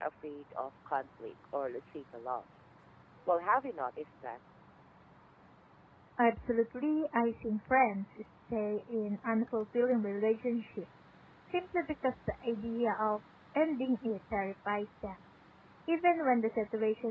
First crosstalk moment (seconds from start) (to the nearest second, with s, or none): none